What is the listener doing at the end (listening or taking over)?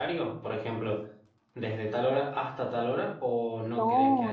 taking over